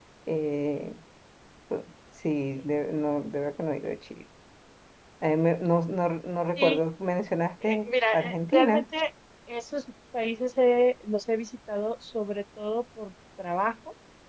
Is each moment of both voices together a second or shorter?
No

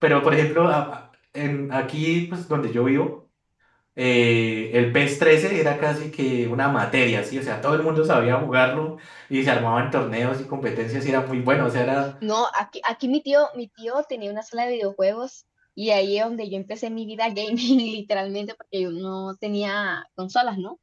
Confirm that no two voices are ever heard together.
Yes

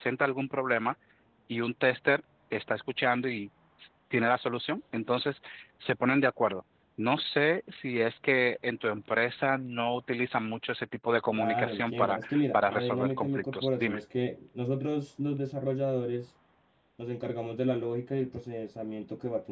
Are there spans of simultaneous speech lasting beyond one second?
Yes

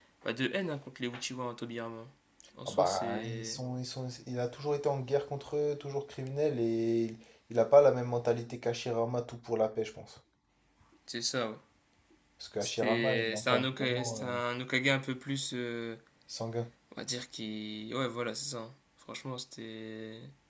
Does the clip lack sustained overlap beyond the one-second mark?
No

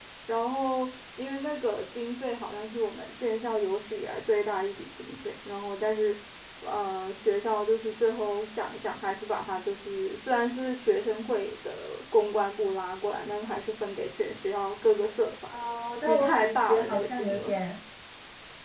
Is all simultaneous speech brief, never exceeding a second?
No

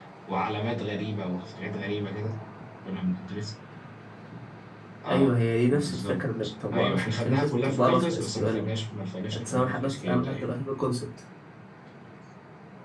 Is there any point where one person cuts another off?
Yes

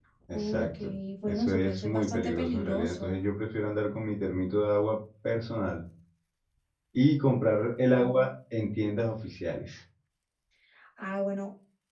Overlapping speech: Yes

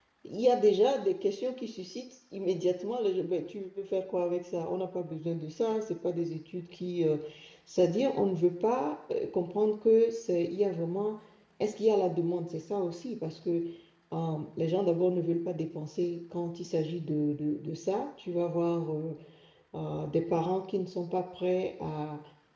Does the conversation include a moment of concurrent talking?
No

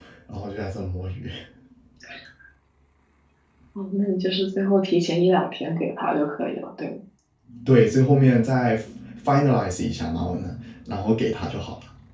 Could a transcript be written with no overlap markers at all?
Yes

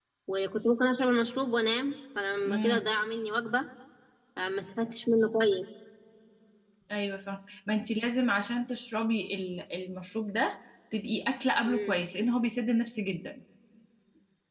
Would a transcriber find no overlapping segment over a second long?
Yes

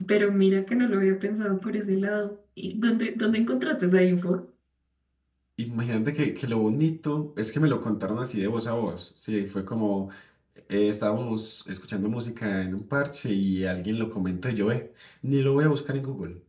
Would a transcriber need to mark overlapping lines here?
No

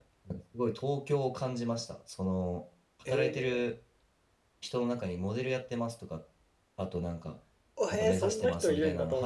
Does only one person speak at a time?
No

